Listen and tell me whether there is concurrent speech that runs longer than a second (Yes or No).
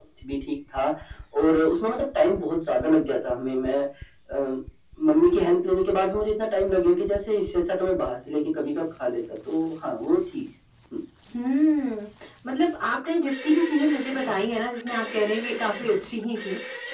No